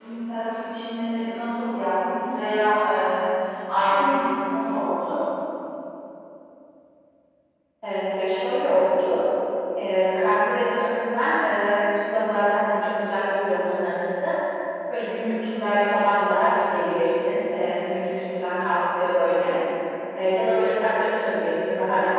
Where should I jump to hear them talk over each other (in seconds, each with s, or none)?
none